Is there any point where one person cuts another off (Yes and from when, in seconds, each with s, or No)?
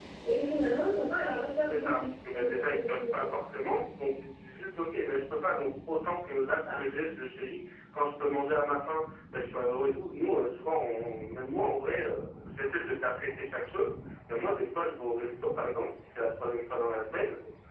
Yes, from 1.7 s